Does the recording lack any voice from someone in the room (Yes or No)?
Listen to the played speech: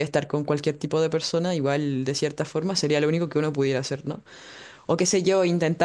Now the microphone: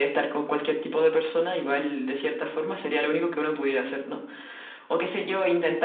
Yes